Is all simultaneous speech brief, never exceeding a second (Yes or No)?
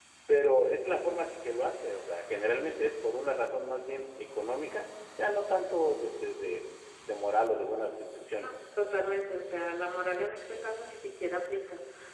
Yes